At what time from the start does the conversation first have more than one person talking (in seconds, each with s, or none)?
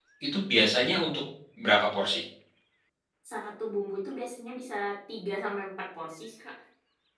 none